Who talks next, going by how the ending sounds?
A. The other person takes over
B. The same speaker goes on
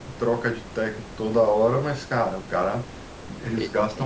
B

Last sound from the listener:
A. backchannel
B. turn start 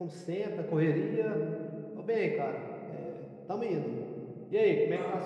B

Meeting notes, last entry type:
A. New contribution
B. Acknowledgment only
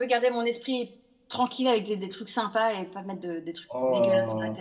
A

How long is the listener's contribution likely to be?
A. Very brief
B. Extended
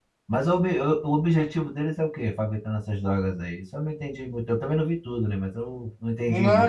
B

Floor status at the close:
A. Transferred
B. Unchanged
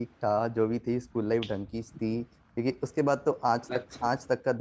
B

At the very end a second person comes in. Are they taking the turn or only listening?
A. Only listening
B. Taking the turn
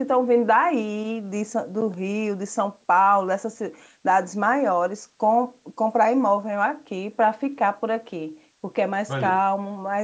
A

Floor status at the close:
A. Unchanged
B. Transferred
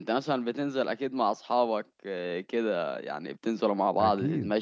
B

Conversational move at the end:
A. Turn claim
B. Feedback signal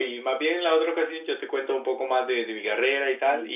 A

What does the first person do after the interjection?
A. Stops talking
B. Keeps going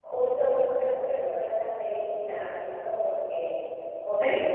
B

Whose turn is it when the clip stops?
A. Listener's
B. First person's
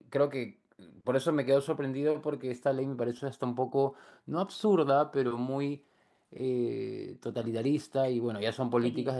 B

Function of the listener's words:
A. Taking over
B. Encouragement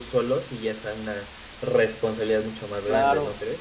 A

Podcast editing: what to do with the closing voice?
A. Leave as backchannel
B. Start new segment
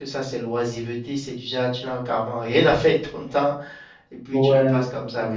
A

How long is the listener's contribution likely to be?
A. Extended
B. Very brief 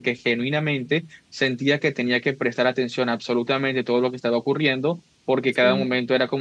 B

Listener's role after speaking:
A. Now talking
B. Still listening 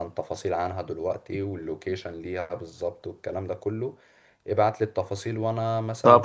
A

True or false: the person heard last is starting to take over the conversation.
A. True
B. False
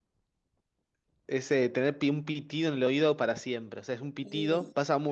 B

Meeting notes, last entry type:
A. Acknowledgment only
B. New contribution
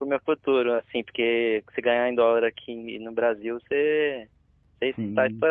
B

